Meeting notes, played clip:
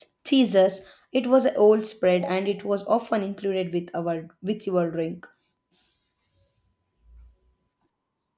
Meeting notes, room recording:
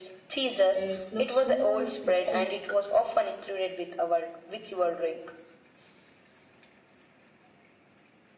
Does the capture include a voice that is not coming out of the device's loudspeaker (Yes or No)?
Yes